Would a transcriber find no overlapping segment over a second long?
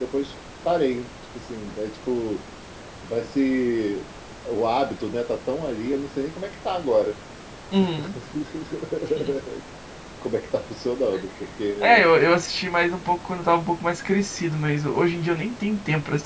Yes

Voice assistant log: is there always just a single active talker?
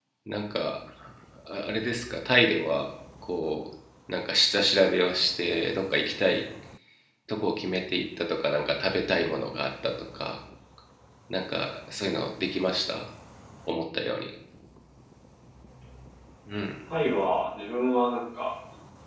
Yes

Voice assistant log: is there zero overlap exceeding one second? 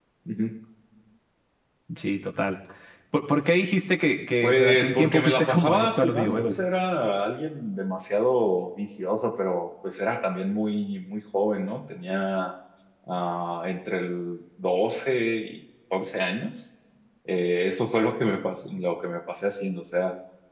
No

